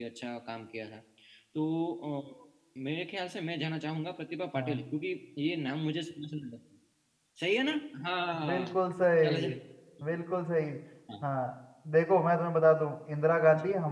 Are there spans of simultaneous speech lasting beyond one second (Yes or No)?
No